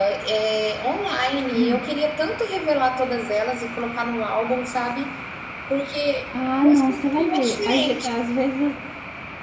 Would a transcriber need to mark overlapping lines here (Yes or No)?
Yes